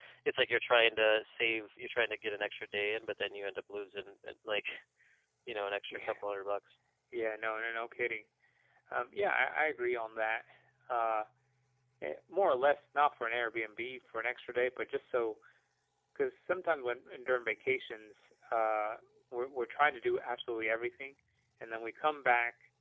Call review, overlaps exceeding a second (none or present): none